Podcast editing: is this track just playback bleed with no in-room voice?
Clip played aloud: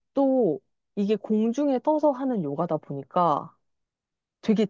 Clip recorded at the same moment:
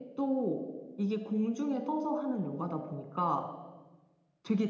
Yes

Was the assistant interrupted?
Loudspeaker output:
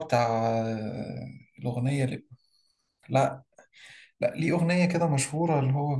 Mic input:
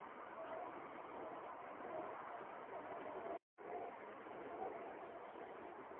No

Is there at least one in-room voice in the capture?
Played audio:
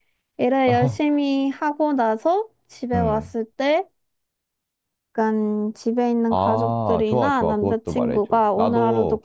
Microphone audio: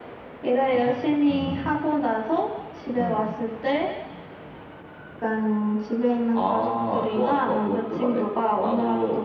Yes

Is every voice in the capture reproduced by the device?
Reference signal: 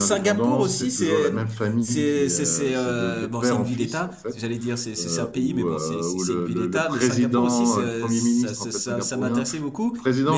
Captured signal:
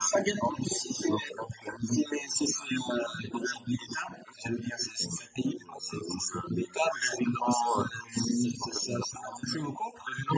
Yes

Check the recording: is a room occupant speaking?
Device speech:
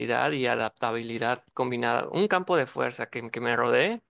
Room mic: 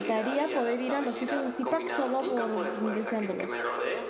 Yes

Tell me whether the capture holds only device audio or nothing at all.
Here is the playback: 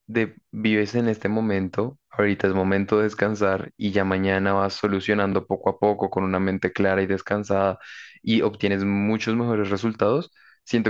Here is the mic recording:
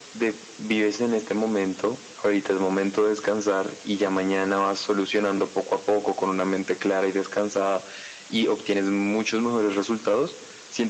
Yes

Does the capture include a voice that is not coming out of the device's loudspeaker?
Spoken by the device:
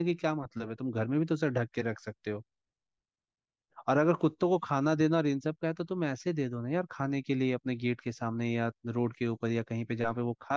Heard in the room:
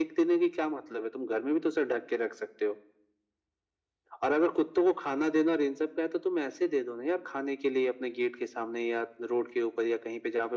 No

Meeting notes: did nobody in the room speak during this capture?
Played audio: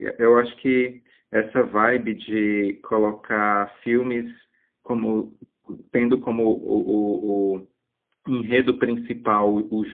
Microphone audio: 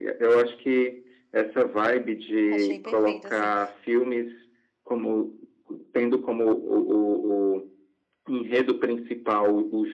No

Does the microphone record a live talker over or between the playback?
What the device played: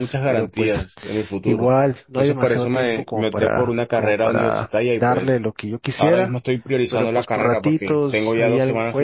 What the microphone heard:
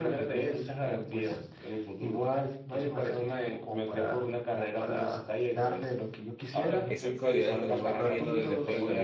Yes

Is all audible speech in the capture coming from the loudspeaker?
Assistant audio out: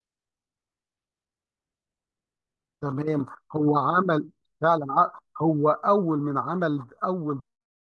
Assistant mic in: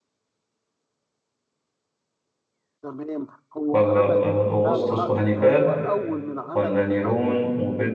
No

